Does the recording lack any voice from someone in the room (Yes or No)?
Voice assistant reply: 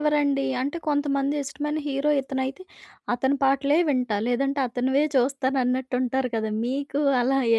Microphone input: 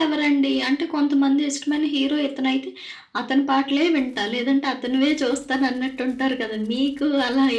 Yes